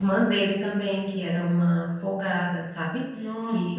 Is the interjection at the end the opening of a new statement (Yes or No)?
Yes